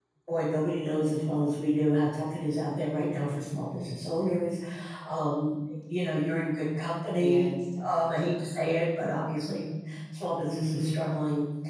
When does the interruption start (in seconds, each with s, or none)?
7.1 s